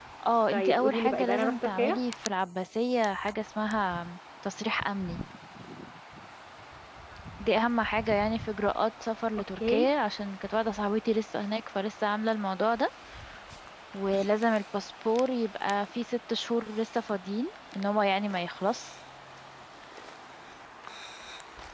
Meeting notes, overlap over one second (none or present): present